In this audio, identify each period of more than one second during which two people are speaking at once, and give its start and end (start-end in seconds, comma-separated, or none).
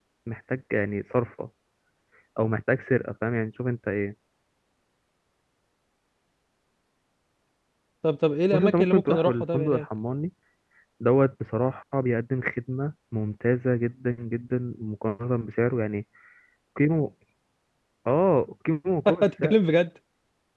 8.5-9.8